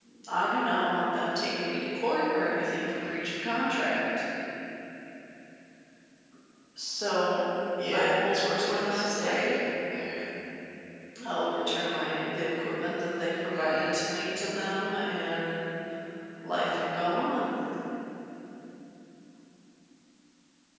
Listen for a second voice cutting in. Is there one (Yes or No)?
Yes